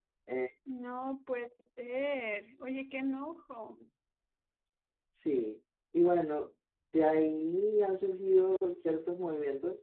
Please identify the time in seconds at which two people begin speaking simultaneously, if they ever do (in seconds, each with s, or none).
none